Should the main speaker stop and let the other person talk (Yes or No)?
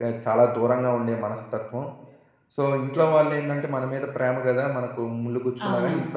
Yes